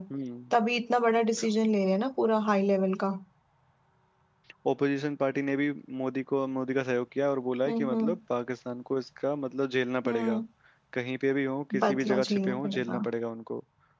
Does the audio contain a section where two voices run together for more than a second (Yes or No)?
Yes